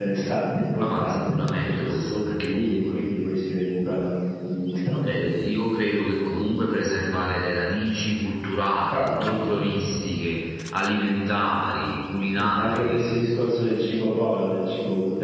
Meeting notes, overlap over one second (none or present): present